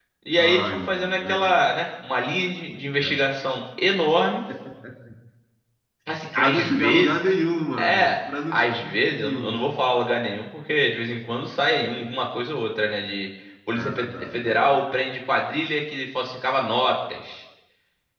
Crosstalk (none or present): present